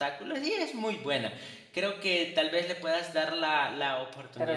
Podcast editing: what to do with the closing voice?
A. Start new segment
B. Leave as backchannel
A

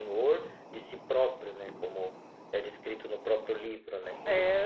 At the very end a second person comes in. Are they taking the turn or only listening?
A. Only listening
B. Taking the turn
B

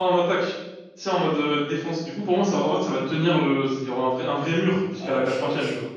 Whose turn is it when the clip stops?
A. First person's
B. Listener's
B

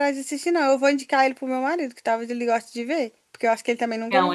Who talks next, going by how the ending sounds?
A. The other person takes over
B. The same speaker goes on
A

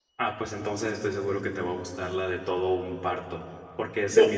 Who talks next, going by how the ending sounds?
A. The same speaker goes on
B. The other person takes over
A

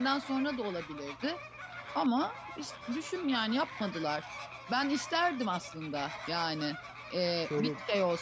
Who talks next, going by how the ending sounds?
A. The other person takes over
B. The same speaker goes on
B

